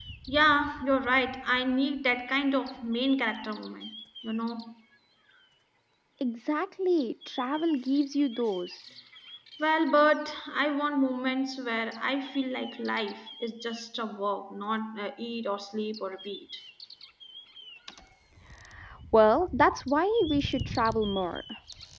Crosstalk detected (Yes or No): No